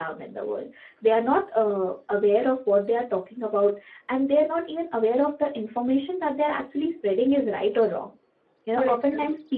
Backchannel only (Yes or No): Yes